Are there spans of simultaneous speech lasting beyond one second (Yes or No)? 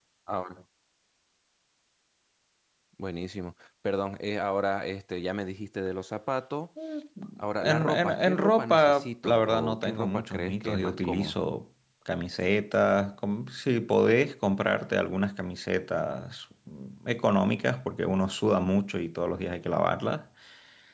Yes